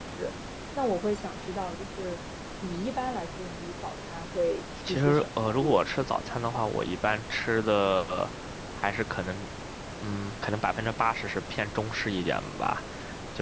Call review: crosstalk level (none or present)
present